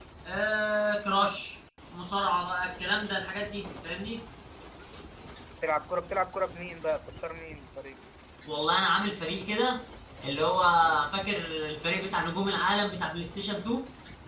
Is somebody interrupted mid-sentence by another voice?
No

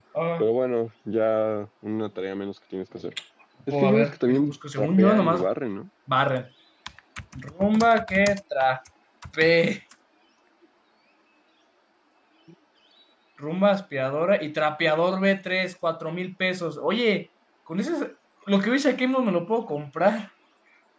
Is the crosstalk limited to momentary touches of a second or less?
No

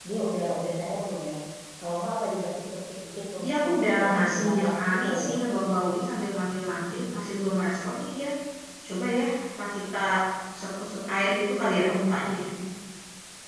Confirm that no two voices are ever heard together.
No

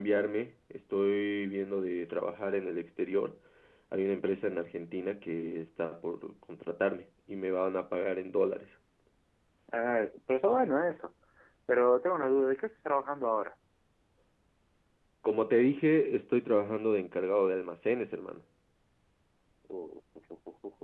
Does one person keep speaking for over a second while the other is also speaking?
No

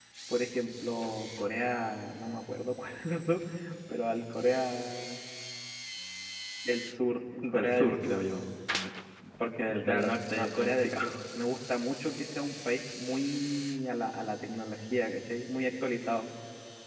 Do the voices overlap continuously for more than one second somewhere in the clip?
Yes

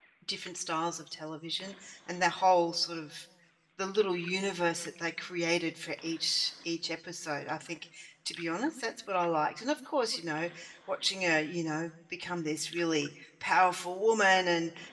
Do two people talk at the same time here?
No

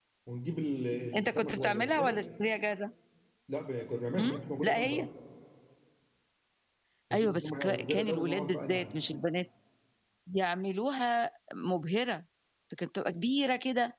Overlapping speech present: Yes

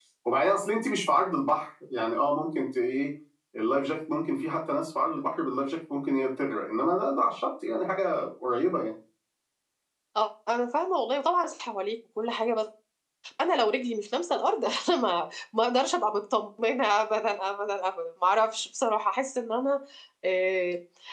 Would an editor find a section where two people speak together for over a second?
No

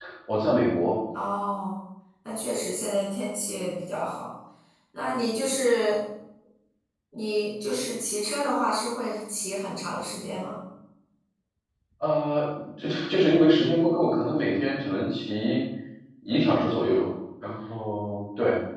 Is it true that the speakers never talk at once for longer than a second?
Yes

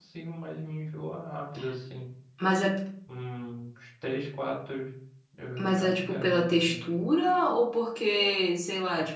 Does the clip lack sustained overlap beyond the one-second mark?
No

